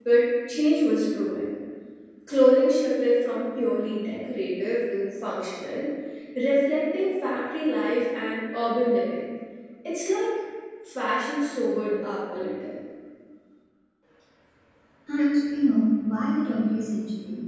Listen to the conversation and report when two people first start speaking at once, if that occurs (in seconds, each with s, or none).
none